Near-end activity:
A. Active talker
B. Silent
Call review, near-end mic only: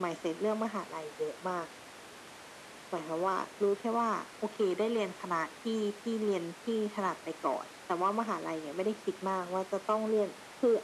B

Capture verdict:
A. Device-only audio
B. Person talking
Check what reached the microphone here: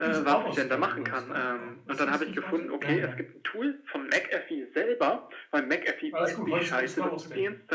B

